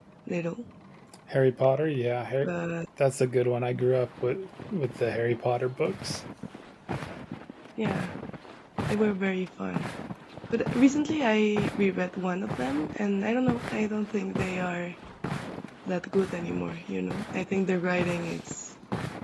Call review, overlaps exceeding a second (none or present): none